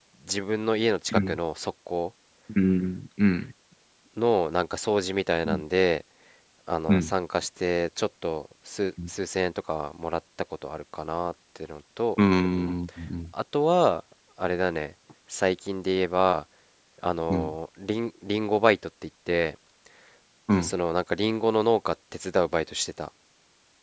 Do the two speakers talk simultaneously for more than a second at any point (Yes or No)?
No